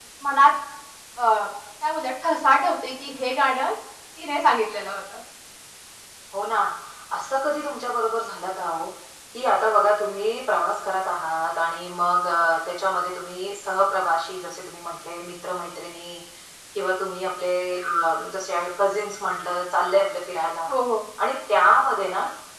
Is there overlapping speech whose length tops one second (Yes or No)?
No